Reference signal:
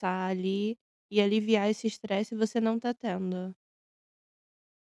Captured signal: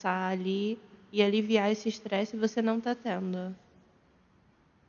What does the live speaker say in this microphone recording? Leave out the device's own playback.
none

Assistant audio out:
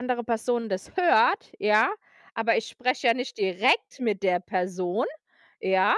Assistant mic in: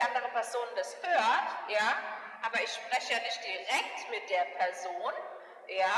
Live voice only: none

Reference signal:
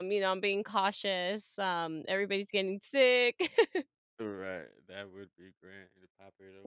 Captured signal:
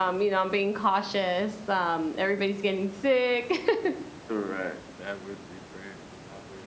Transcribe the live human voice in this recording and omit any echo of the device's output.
none

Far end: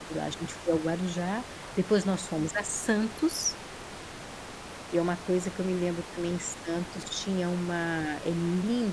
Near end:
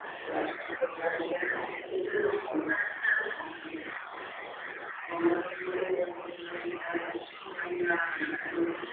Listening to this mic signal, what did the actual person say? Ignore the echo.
none

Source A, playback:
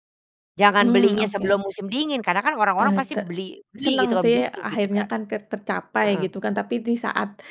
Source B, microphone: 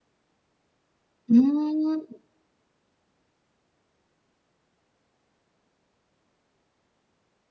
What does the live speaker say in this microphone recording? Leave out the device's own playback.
Mmm.

